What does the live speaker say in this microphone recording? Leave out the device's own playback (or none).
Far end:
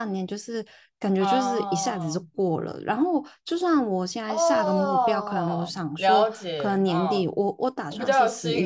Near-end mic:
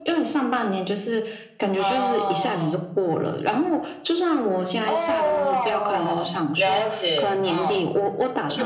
none